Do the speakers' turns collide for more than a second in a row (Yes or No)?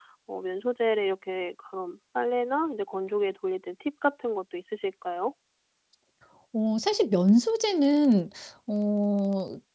No